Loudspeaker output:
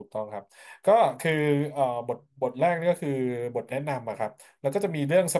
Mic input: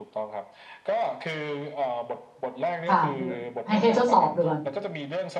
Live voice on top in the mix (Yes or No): Yes